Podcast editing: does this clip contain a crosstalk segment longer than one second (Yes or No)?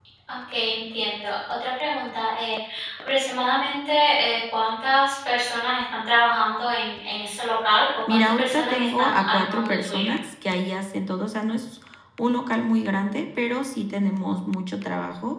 Yes